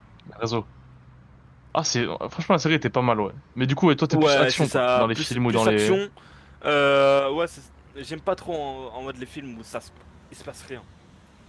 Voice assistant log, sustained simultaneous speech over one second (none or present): present